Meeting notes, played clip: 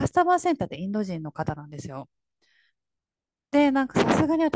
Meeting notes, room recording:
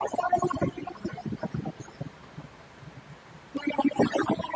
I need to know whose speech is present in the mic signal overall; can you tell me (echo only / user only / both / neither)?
echo only